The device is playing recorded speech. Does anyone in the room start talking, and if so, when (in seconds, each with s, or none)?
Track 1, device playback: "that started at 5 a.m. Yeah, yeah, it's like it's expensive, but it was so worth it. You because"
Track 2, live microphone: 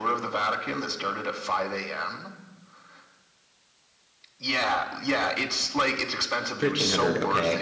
6.6 s